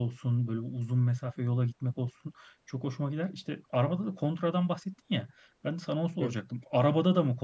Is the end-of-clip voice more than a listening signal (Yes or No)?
No